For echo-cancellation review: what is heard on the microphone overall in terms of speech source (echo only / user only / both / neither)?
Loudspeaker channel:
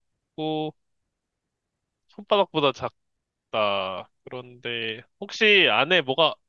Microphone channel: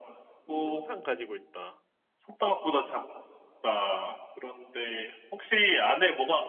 both